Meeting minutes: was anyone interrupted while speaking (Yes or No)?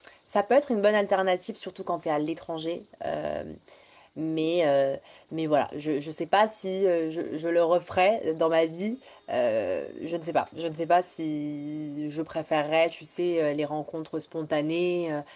No